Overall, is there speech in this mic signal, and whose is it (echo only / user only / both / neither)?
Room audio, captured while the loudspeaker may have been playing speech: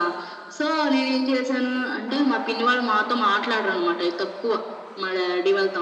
echo only